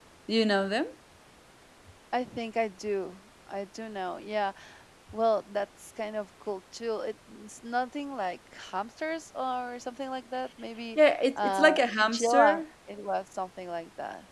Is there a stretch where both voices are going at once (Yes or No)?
Yes